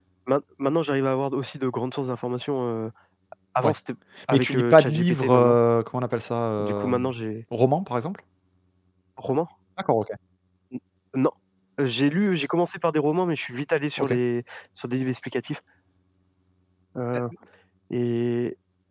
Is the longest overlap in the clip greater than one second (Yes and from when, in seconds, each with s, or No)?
Yes, from 4.3 s